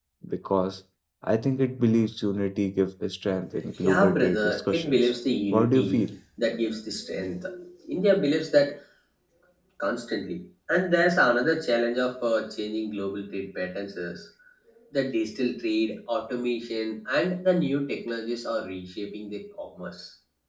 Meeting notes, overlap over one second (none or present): present